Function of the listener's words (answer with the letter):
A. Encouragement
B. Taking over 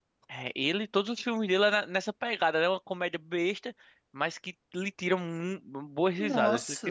B